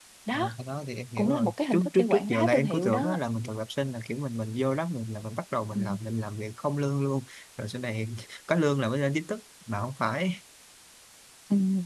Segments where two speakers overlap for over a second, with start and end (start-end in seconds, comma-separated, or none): 1.2-3.2